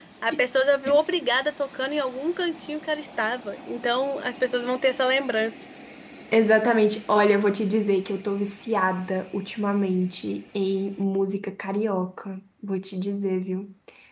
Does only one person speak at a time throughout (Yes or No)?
Yes